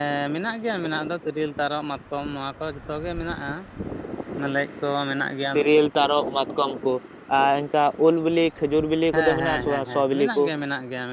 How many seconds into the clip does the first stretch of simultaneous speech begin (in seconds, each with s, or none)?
9.1 s